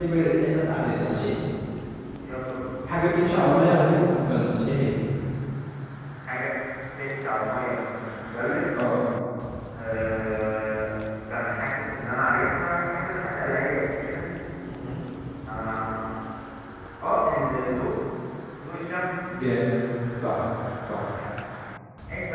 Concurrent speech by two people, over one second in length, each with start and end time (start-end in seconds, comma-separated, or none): none